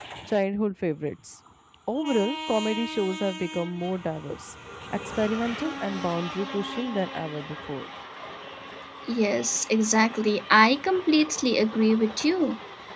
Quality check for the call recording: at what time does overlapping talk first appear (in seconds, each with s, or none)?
none